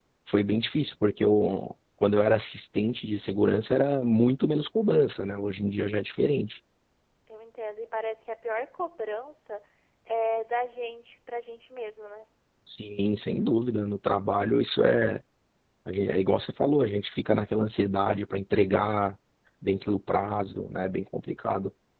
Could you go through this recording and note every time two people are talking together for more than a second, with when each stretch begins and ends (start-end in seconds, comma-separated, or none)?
none